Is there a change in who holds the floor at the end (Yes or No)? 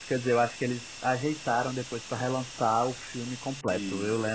No